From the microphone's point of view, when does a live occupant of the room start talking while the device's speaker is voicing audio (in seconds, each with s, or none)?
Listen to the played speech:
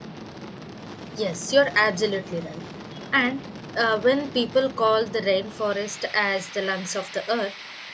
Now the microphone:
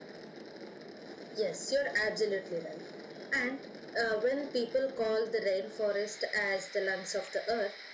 none